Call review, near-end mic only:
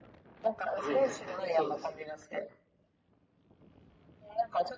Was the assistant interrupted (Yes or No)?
Yes